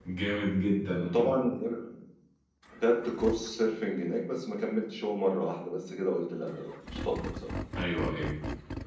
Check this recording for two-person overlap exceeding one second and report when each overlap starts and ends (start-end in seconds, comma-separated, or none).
none